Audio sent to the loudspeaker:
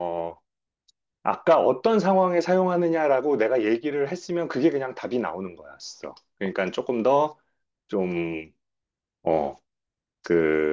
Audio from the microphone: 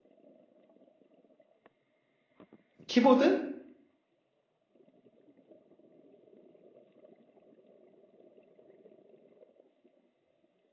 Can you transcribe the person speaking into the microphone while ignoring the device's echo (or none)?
키보드?